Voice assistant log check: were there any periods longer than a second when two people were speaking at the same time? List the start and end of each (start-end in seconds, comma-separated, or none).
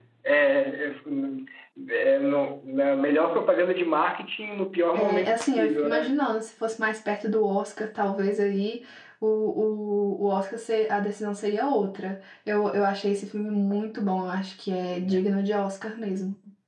4.9-6.2